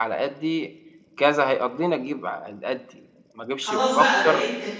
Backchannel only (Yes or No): No